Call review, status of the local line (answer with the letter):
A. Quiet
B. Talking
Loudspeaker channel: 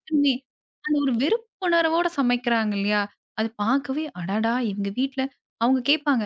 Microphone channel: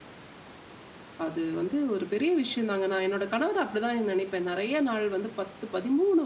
B